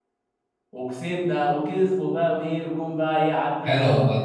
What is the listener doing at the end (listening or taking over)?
taking over